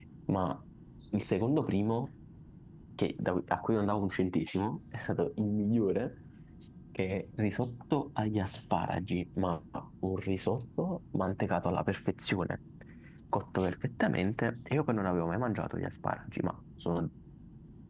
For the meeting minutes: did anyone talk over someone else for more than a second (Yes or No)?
No